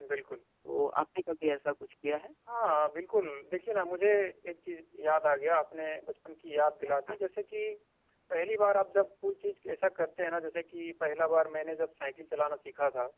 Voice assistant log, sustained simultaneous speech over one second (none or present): none